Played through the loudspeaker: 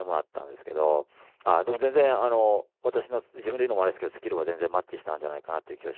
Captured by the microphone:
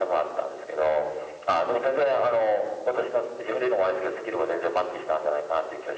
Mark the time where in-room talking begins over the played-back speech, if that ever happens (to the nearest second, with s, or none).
none